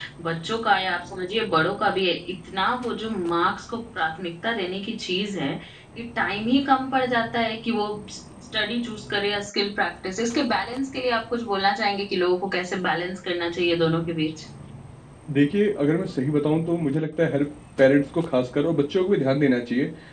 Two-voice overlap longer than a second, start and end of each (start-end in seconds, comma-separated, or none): none